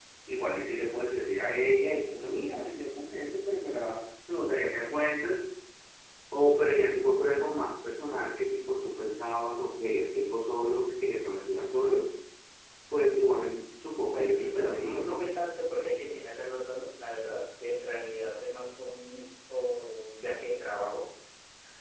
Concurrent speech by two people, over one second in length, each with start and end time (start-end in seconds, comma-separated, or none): 14.0-15.2